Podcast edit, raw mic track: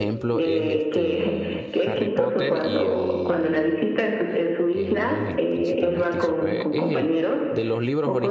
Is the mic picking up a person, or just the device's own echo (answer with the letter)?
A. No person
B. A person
B